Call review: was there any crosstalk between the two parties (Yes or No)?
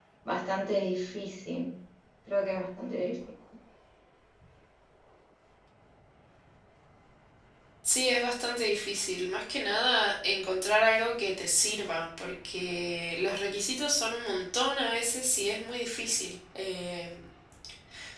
No